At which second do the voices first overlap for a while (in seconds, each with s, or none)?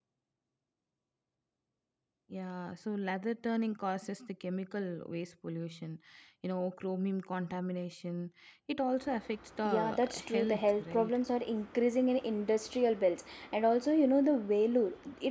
9.6 s